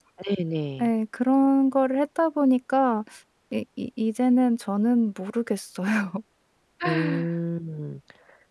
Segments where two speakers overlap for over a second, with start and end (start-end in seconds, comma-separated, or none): none